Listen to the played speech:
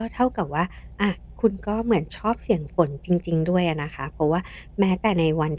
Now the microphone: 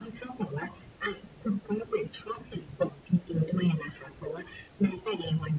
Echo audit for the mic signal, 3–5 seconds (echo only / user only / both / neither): echo only